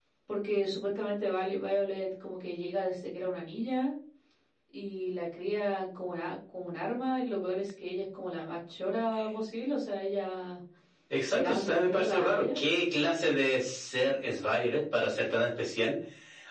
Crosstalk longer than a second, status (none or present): present